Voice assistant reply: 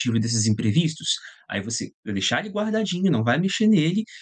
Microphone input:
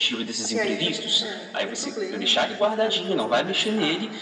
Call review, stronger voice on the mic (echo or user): echo